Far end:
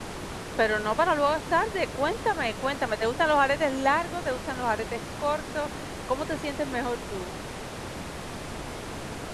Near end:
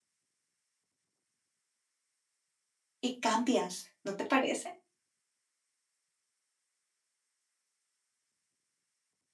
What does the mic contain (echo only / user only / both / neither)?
user only